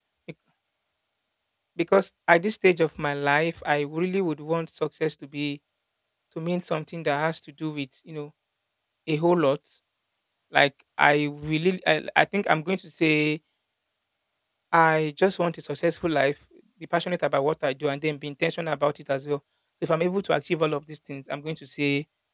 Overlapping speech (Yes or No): No